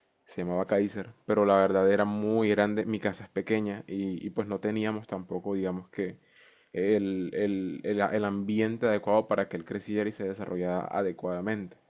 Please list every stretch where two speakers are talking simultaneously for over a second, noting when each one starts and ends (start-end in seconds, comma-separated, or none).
none